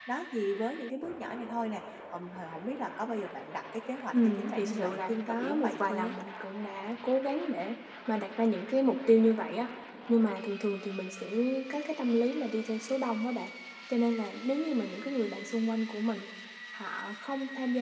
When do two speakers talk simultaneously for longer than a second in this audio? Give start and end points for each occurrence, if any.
4.1-6.1

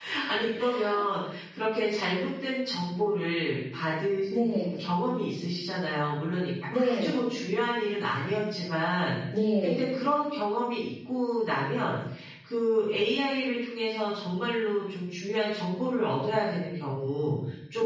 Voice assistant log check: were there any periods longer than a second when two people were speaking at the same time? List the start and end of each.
none

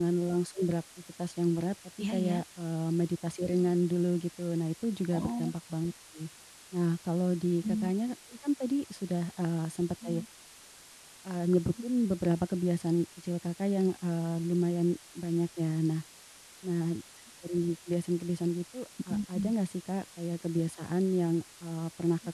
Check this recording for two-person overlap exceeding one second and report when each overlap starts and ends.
none

